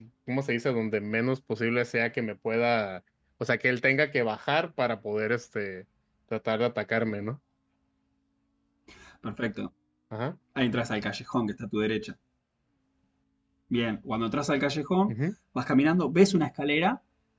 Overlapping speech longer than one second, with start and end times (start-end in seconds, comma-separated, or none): none